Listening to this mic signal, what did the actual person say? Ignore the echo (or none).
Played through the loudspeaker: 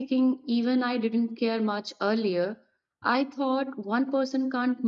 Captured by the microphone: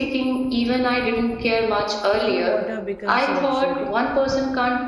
clean water becomes a luxury?